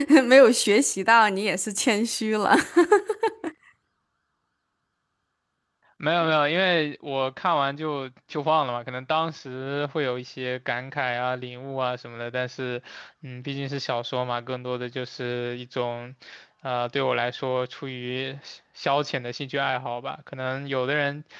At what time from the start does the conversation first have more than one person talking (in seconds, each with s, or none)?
none